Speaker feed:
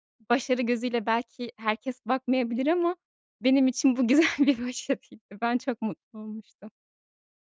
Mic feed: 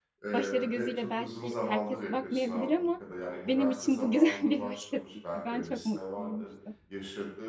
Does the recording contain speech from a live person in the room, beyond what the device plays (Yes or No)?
Yes